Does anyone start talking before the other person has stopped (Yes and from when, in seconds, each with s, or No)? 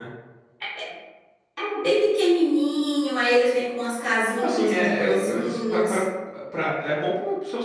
Yes, from 4.3 s